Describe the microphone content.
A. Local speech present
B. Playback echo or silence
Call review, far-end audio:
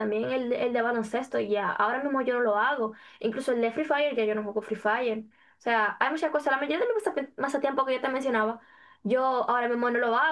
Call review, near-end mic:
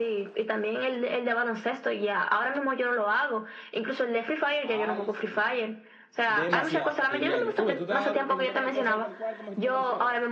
A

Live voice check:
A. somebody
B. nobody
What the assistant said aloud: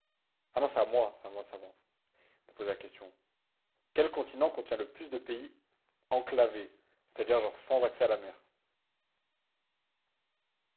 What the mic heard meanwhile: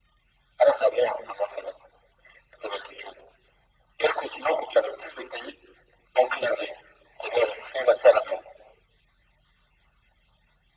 B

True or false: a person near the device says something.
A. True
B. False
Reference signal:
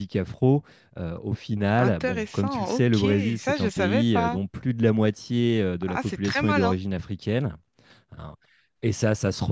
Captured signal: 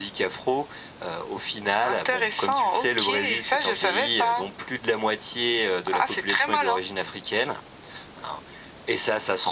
B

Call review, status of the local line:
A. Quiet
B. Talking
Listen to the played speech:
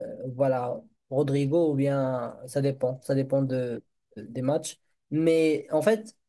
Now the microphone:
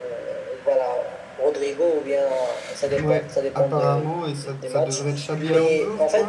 B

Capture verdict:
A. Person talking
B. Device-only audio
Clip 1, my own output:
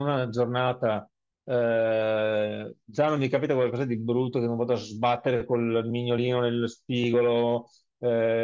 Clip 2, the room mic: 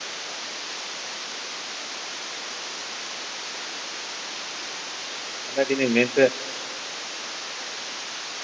A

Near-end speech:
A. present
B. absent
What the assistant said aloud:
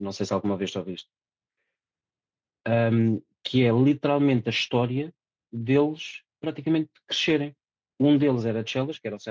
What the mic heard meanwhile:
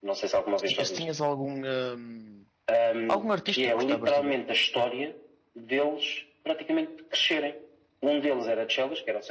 A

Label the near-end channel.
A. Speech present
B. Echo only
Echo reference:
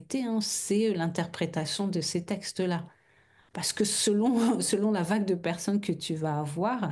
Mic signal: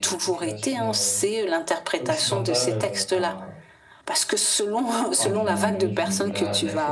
A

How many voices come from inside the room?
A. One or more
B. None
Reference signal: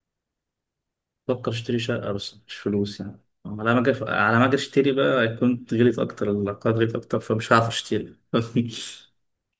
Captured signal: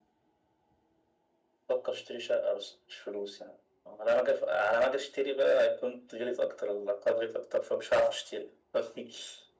B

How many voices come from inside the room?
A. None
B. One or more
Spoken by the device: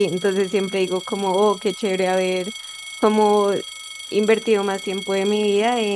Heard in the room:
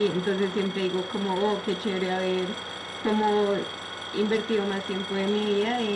A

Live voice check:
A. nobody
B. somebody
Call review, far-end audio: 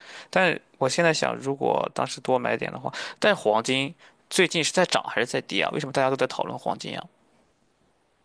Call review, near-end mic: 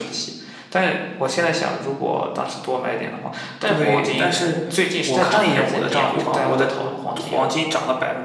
B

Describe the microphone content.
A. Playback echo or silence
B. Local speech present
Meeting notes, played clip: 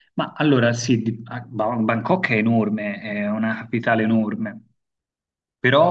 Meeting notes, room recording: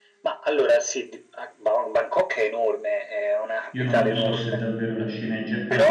B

